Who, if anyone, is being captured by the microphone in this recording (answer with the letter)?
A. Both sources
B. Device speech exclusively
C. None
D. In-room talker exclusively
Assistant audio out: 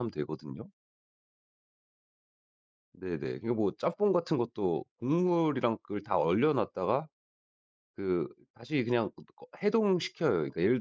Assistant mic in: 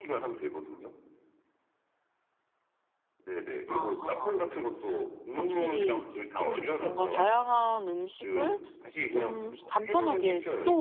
A